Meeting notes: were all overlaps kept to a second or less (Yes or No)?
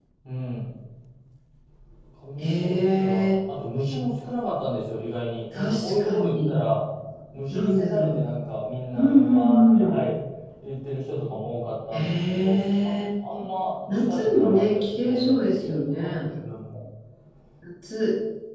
No